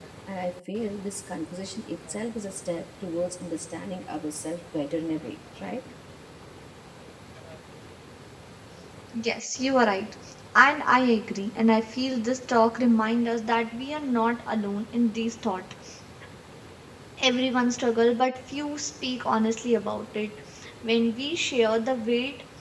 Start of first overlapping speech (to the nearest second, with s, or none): none